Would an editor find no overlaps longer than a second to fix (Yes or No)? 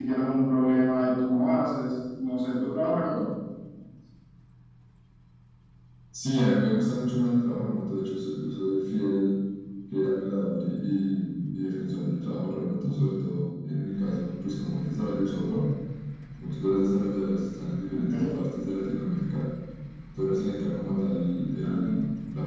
Yes